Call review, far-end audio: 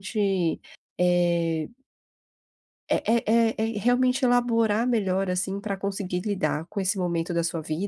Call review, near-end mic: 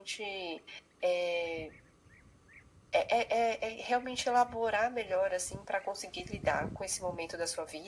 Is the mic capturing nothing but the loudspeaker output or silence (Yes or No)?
Yes